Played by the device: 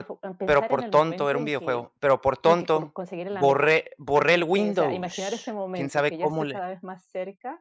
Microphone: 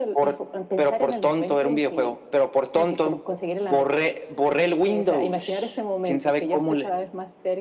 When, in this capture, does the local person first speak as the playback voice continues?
none

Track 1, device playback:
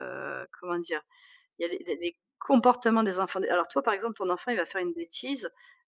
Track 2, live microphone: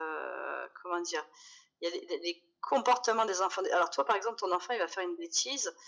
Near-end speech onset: none

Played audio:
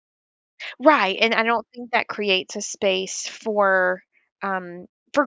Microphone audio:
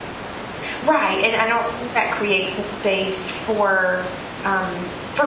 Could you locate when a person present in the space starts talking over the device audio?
none

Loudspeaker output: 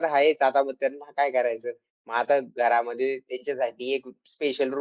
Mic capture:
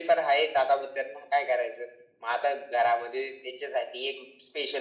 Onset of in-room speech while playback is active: none

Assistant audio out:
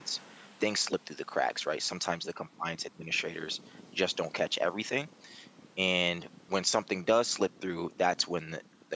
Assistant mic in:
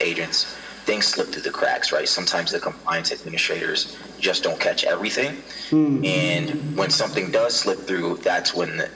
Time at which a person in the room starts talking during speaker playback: 6 s

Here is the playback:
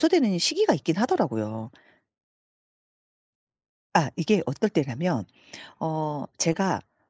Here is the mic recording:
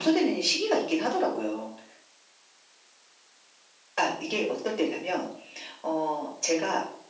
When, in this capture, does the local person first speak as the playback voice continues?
none

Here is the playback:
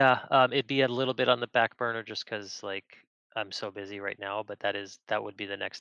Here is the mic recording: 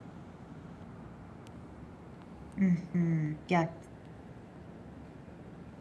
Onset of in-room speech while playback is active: 3 s

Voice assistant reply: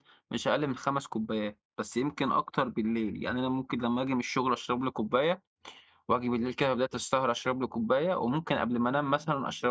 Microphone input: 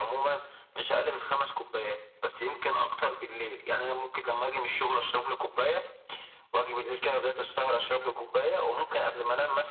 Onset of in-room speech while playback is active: none

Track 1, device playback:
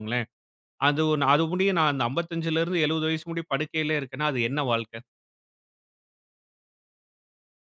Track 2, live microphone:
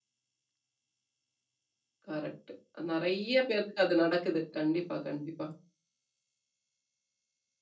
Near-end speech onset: 2 s

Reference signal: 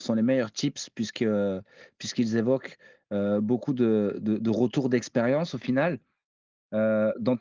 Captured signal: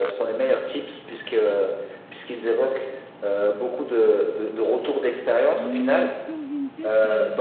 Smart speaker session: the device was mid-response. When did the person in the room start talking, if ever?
6 s

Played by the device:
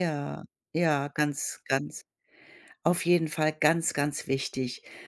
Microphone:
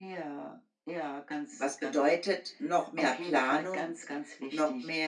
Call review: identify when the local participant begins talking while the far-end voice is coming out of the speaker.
1 s

